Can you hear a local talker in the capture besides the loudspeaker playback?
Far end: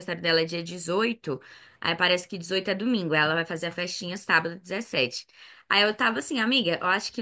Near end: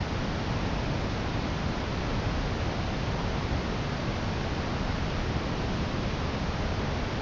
No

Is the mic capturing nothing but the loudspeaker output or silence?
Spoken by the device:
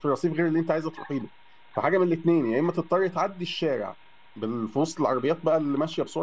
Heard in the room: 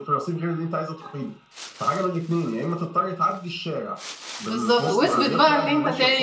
No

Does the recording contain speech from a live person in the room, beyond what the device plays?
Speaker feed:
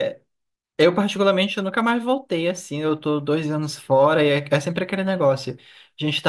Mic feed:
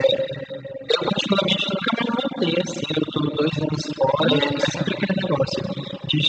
Yes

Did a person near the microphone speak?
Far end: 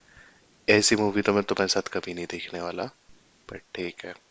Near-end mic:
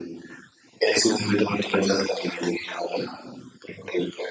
No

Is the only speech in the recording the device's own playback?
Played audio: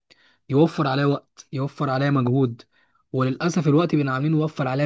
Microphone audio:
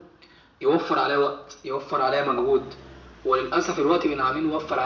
Yes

